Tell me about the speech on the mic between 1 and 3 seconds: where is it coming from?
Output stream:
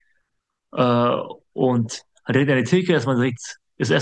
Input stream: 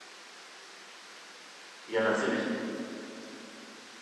user only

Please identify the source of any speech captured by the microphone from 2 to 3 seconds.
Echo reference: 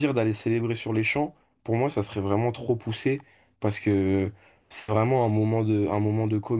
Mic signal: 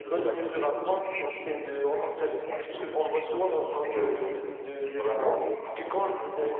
both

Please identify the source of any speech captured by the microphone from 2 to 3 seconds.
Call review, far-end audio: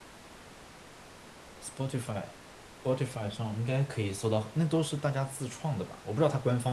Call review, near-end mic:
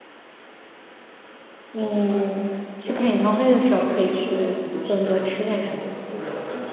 both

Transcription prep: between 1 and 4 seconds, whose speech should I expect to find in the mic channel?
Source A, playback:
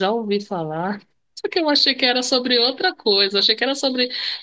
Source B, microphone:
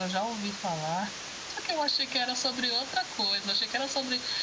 echo only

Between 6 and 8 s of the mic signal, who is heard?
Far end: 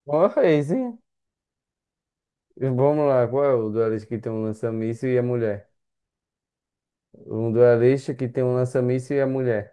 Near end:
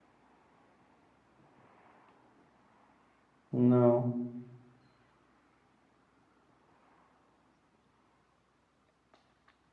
neither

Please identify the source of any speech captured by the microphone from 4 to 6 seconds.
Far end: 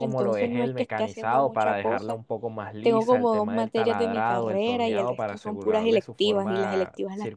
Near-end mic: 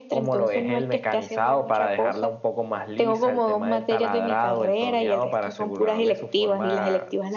echo only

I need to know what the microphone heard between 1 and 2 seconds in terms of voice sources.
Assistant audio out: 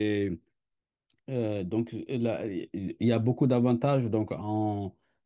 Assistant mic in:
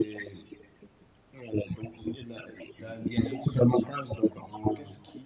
echo only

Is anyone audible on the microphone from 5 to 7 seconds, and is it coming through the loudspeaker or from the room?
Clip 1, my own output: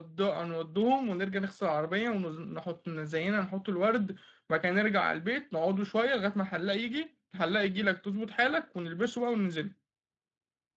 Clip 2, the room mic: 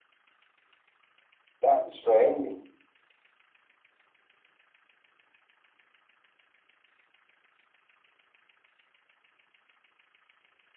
neither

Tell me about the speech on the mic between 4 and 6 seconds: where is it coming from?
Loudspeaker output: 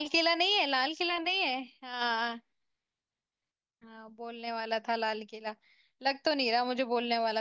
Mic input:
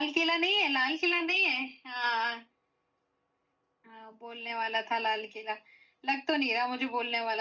echo only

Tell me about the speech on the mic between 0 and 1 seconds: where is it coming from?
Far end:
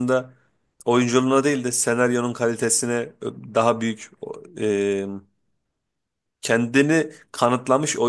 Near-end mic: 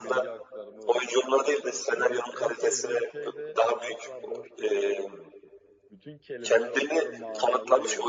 both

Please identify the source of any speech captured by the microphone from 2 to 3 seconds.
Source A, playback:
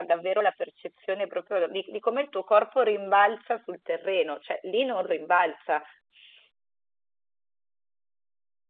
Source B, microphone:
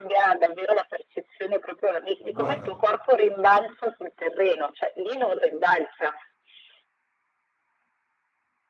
both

